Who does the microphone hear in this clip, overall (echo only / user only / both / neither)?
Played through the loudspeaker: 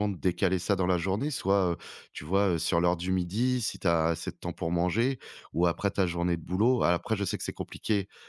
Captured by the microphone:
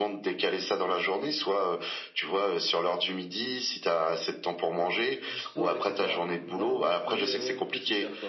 both